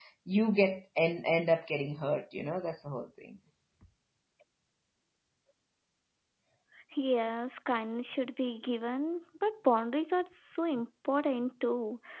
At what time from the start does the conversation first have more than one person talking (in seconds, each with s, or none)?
none